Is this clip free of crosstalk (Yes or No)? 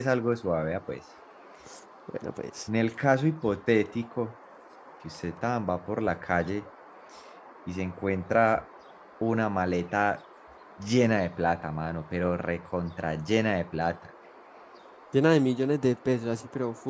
Yes